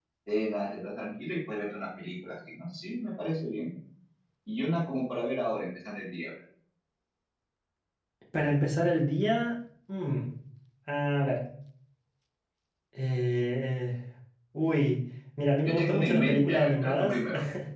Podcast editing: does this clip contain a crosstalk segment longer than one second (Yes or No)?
Yes